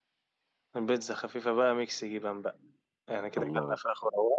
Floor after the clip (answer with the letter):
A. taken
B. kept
B